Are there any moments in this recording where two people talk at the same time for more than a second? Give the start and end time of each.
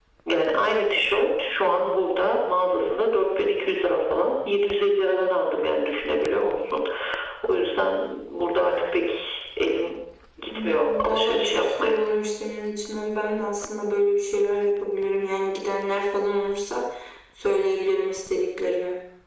10.6-12.0

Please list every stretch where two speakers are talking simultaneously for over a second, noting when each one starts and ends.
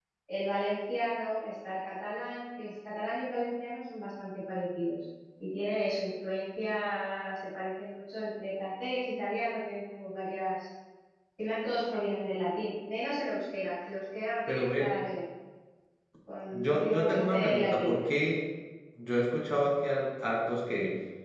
16.5-18.0

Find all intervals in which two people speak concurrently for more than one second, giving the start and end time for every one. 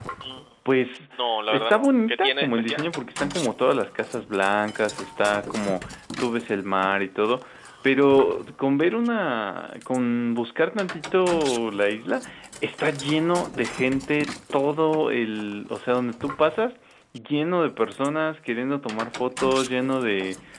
1.5-2.8

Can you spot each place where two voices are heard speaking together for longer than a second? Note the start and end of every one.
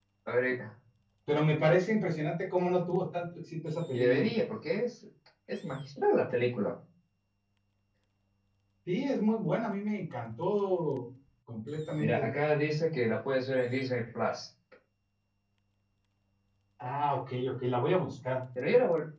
none

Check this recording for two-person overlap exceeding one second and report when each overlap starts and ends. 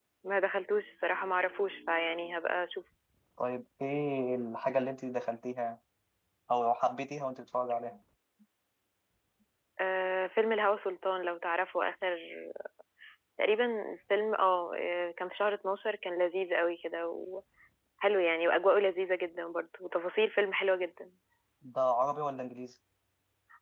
none

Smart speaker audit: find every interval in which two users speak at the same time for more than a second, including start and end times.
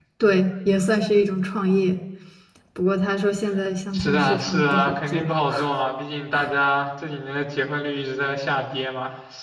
3.9-5.3

